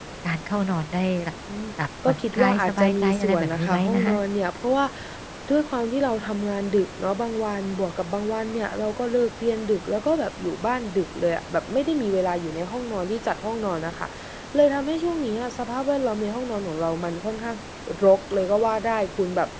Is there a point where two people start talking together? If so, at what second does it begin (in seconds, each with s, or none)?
2.1 s